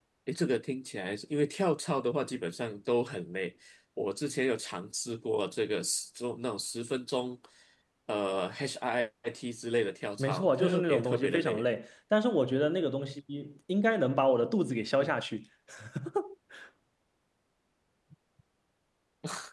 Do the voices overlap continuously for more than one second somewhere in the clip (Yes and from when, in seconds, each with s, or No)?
Yes, from 10.2 s